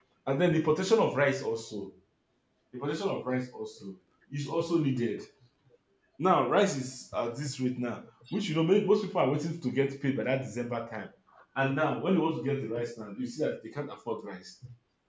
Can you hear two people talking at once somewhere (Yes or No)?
No